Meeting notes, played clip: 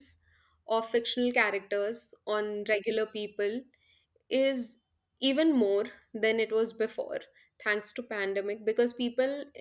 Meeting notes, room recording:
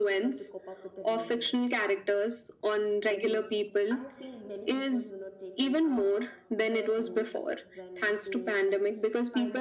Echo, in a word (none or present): present